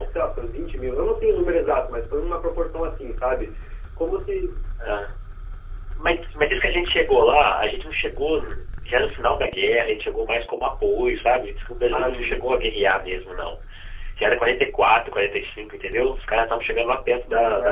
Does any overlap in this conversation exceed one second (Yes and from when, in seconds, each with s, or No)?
No